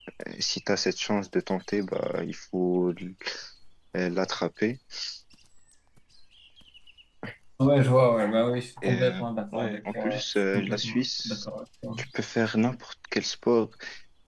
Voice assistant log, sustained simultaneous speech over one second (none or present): present